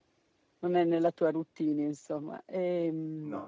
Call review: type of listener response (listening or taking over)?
listening